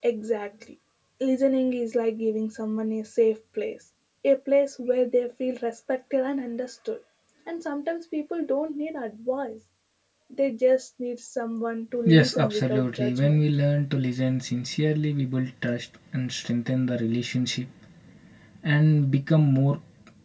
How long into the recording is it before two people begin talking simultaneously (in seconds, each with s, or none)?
12.1 s